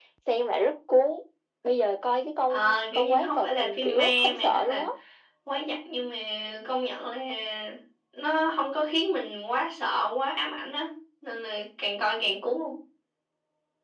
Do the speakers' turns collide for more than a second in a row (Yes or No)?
Yes